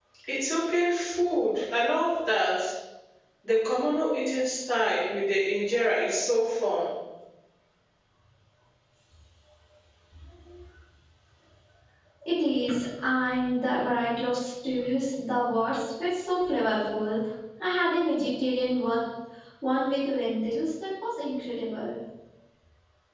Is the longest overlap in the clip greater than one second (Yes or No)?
No